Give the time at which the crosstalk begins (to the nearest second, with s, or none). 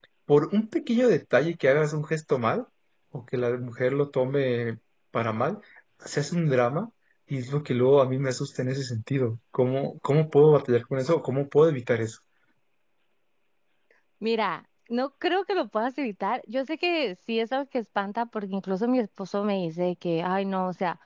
none